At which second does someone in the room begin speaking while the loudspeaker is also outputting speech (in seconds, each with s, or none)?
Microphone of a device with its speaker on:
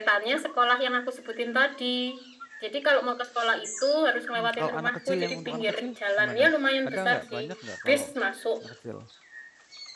4.3 s